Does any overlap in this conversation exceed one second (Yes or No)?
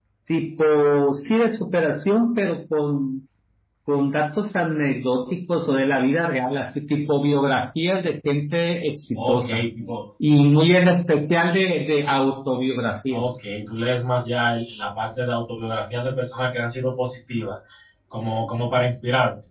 No